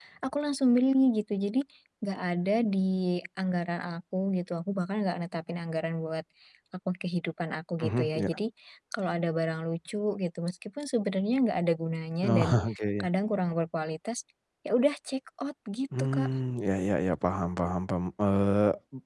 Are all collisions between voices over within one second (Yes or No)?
Yes